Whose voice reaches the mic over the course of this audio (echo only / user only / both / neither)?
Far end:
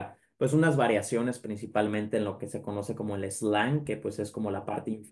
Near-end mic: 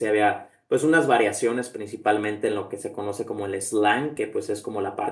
echo only